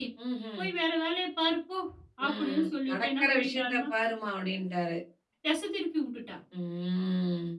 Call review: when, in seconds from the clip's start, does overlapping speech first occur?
2.3 s

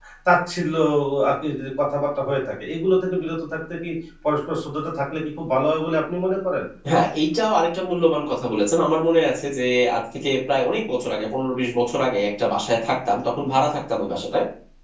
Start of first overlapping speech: none

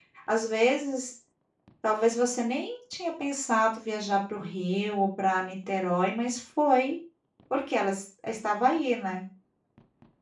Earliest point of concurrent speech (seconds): none

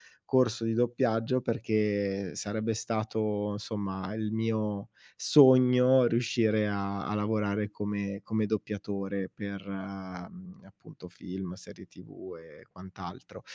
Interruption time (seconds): none

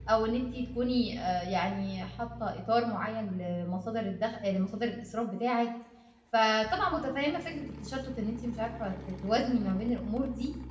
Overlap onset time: none

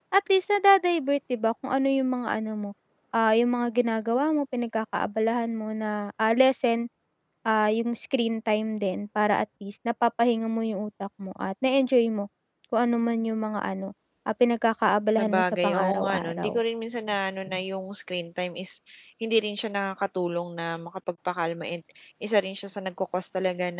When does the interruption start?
15.1 s

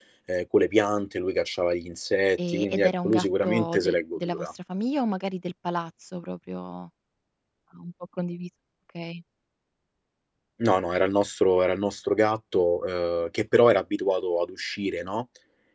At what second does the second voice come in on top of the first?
2.4 s

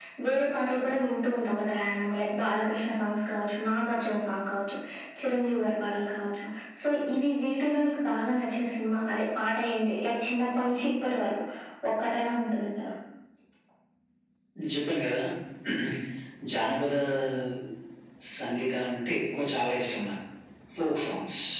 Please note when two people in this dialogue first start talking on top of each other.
none

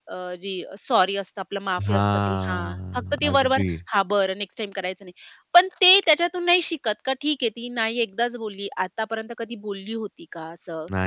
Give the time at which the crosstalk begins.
1.9 s

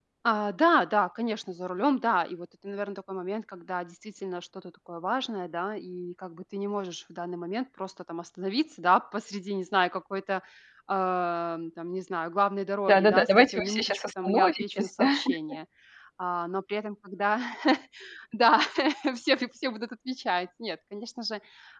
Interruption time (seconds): 12.9 s

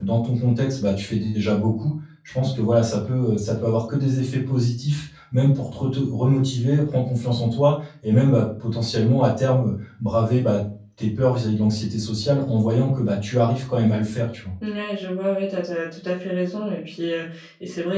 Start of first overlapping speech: none

